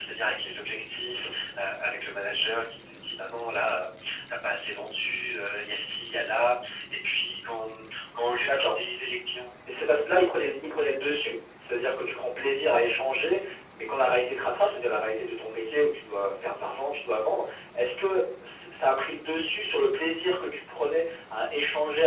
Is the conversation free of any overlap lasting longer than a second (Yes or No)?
Yes